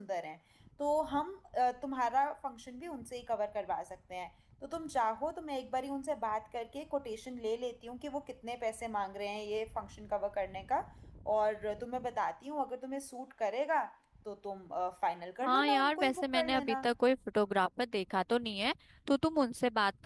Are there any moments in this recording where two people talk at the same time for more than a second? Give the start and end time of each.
15.4-16.8

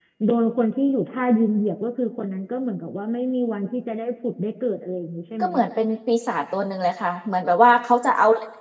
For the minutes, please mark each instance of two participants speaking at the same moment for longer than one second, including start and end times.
none

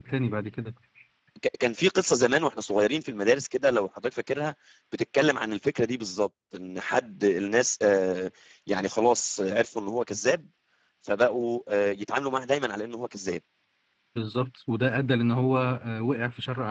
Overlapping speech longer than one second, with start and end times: none

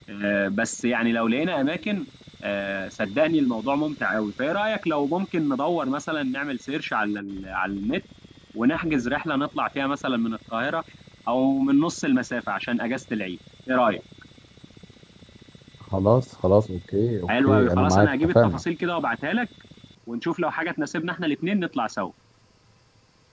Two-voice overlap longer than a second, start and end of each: 17.3-18.6

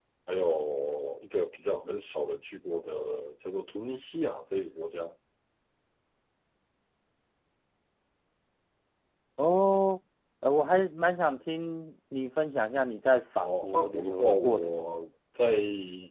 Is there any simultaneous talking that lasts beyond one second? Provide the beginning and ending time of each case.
13.4-14.8

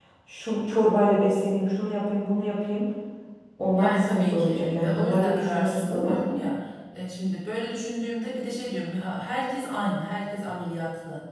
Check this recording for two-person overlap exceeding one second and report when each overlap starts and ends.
3.8-6.2

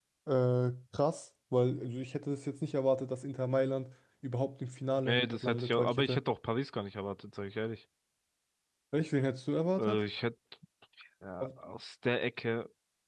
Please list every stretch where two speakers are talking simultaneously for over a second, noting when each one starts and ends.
5.0-6.2

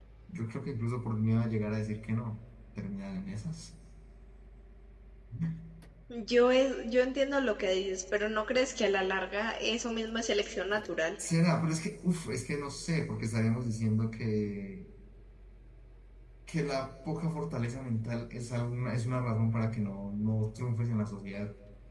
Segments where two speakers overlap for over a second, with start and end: none

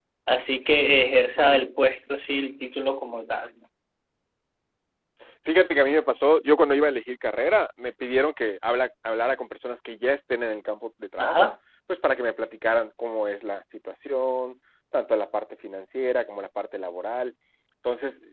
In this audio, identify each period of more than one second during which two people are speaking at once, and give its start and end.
none

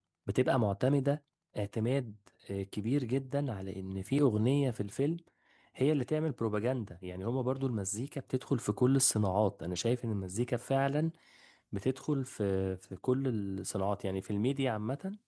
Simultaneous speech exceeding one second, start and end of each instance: none

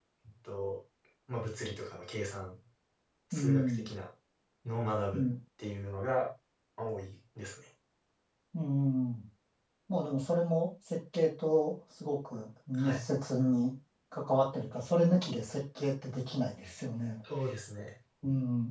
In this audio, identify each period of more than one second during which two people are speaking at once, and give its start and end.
none

